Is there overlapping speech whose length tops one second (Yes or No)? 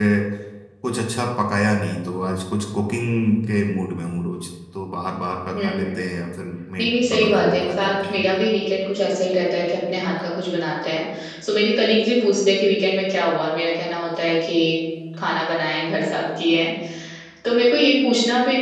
Yes